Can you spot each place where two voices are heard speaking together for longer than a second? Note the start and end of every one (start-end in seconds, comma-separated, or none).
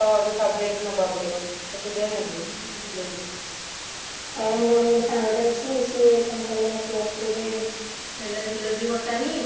none